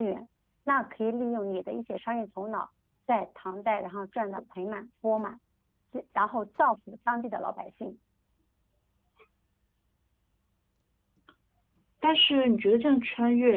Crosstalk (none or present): none